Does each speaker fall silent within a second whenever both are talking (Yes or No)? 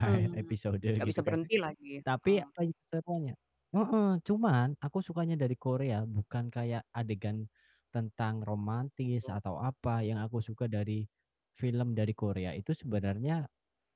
Yes